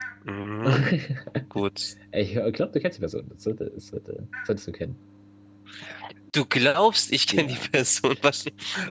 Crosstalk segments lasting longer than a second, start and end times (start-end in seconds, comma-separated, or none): none